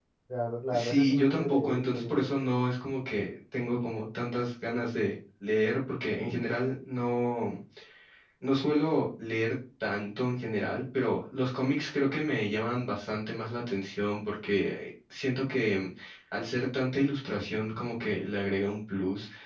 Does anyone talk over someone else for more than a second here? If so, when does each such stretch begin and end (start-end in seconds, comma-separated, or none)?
0.7-2.3